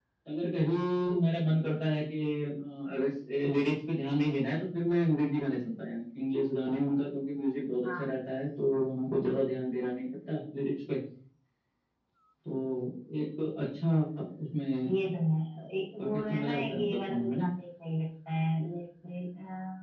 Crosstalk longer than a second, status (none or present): present